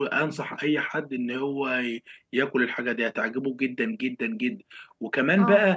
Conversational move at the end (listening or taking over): listening